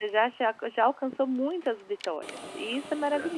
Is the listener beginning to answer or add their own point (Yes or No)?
No